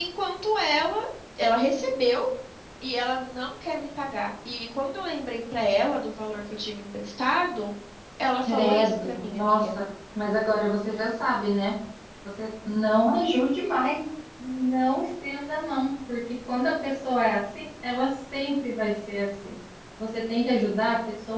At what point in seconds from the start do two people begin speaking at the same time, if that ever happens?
8.5 s

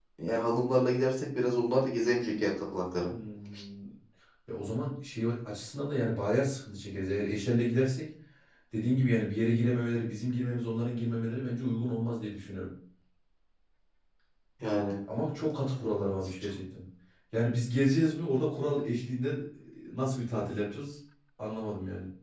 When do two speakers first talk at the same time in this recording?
none

